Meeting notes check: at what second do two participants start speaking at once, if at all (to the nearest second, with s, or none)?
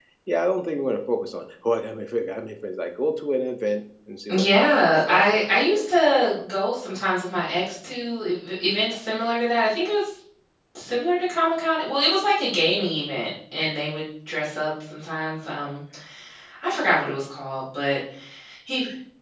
4 s